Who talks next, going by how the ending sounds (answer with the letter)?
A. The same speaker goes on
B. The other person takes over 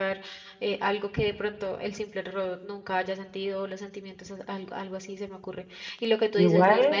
A